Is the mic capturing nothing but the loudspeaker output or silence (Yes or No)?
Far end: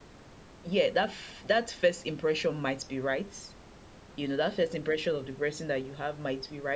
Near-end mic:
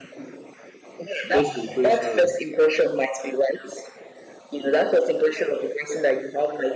No